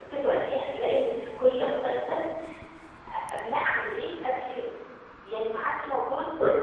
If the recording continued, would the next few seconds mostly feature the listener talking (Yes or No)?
No